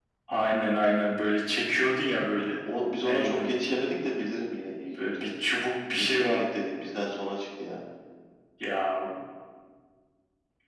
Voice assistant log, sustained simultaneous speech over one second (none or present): none